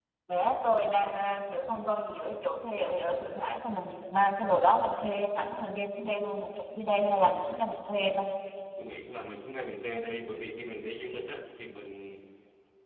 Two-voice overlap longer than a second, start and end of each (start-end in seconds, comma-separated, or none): none